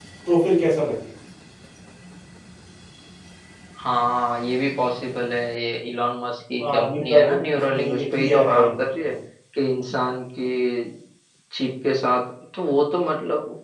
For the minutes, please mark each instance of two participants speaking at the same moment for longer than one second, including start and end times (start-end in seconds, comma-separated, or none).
6.6-8.6